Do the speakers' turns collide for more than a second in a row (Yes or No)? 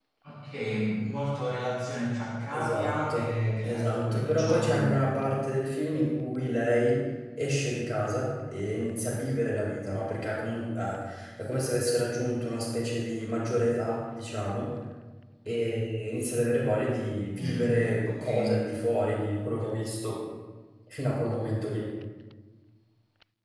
Yes